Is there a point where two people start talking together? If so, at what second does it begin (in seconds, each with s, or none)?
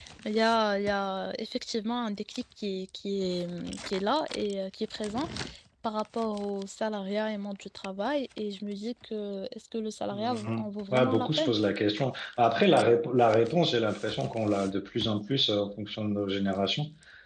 10.1 s